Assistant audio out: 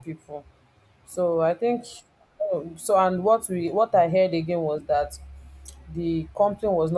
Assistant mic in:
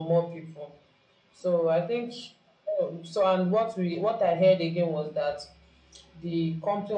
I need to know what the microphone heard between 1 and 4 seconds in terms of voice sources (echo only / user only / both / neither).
echo only